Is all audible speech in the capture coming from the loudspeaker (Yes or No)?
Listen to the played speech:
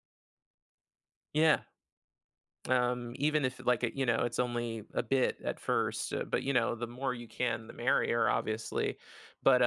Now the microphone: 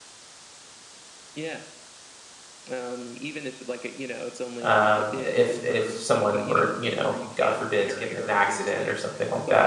No